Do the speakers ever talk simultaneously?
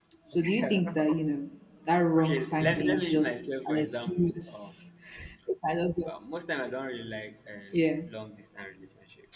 Yes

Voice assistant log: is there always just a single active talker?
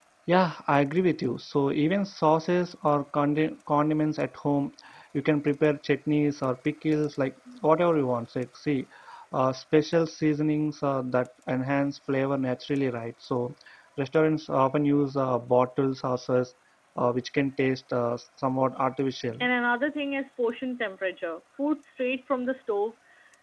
Yes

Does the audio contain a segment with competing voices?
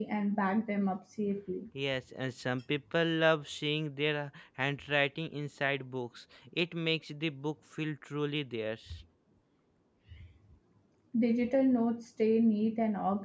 No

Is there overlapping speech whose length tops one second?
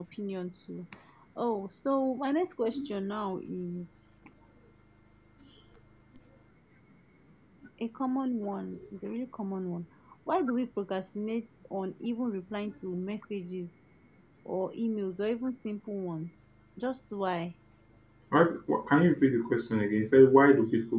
No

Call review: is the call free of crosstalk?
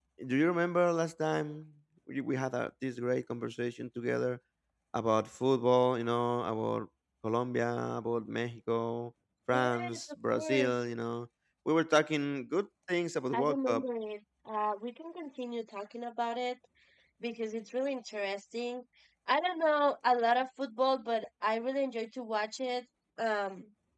No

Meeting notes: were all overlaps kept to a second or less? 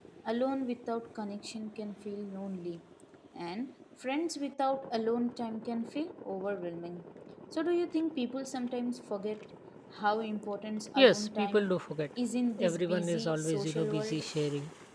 No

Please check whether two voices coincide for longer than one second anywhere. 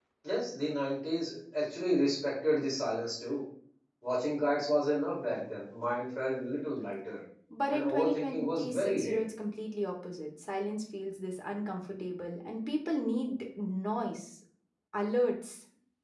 Yes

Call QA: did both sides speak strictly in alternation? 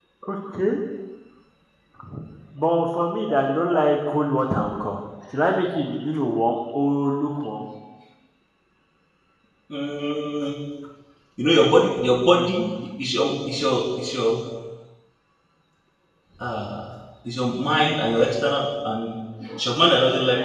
Yes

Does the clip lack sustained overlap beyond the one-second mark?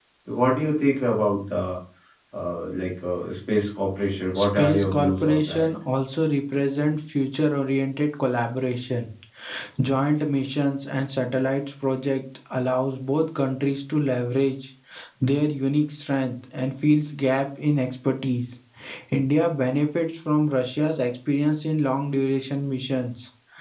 No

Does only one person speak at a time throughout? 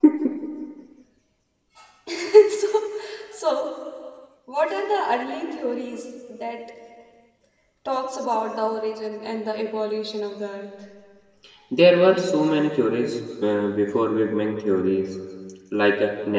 Yes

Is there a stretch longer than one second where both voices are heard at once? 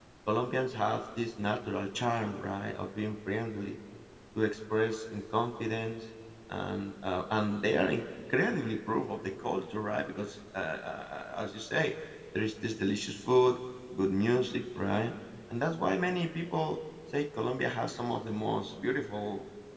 No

